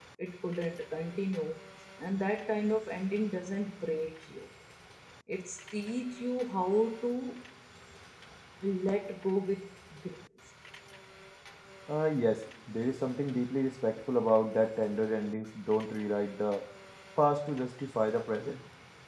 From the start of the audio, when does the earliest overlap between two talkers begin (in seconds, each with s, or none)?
none